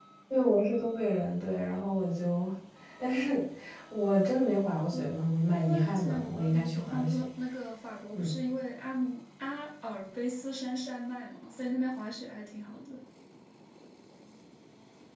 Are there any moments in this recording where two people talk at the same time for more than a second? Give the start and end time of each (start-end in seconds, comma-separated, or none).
5.5-7.2